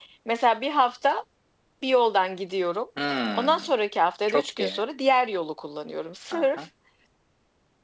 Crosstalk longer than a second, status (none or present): none